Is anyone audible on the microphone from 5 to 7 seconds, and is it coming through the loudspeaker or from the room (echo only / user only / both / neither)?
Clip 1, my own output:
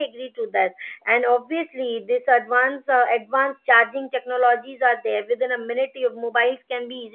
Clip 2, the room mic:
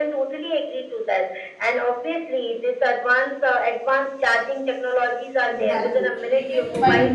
both